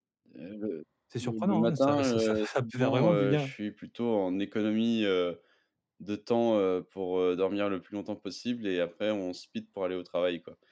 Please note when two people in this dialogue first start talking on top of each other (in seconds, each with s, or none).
1.2 s